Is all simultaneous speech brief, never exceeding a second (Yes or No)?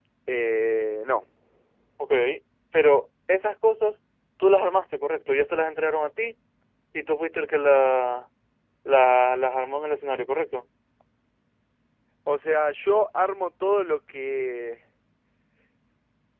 Yes